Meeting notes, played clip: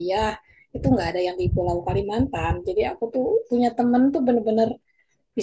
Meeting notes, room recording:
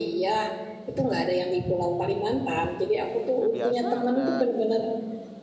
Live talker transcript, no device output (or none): Udah biasa, udah